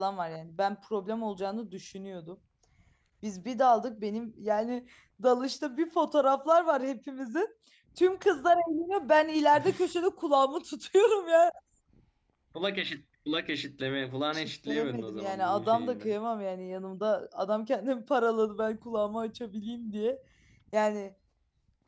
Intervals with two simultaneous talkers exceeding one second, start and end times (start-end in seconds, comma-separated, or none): 14.3-16.1